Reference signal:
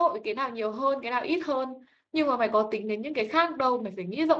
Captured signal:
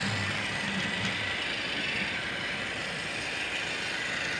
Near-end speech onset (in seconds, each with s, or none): none